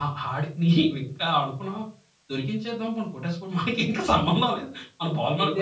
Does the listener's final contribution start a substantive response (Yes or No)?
Yes